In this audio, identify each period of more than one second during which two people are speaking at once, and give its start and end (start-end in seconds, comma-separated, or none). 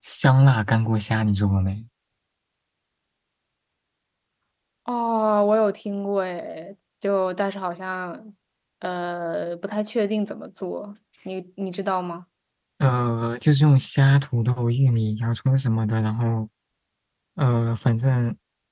none